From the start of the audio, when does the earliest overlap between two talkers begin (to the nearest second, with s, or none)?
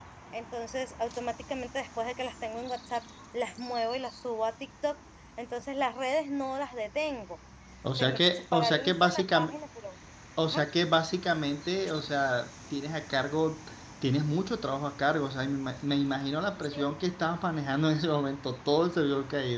8 s